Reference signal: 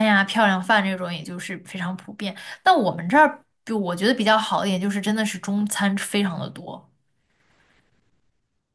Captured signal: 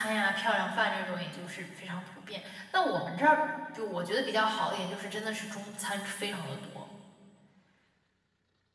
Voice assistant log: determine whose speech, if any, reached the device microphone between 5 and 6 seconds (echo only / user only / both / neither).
echo only